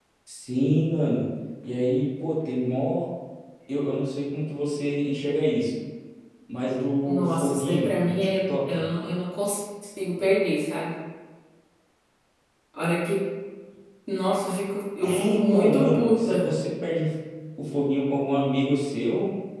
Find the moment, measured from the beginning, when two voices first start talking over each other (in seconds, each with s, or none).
7.0 s